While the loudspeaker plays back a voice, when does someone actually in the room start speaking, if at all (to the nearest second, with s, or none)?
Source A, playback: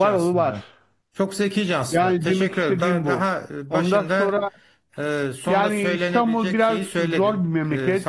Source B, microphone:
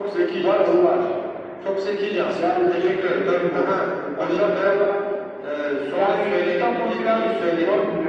none